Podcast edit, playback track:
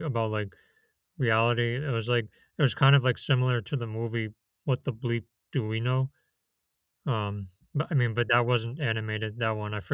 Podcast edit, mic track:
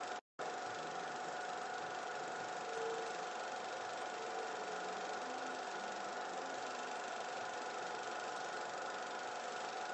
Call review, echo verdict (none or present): none